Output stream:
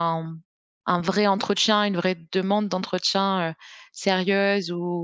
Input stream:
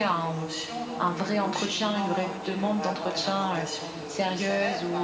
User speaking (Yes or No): Yes